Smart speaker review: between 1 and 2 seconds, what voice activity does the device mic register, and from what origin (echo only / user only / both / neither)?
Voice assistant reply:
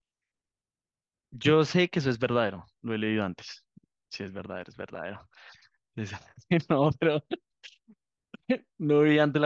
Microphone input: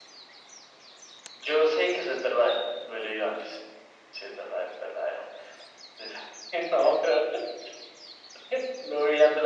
echo only